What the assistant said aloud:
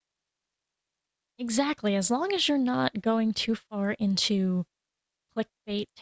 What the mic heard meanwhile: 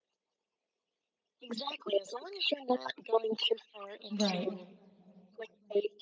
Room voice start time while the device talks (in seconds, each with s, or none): 4.1 s